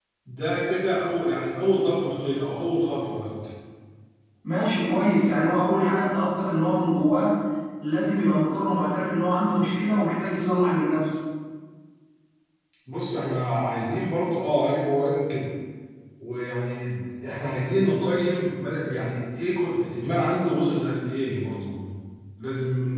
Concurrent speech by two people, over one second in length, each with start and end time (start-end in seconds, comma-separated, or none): none